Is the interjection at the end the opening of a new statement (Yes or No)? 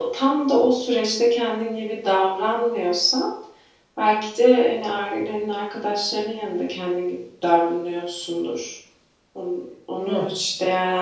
No